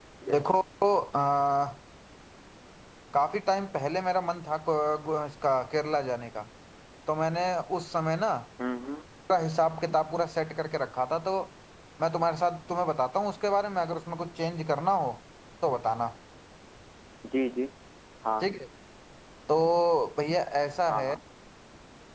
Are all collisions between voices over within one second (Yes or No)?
Yes